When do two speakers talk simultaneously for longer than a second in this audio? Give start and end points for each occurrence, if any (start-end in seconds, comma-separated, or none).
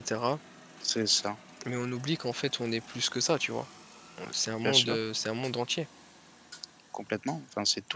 none